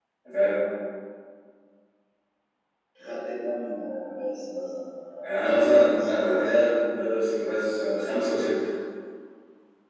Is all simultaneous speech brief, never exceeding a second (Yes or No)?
No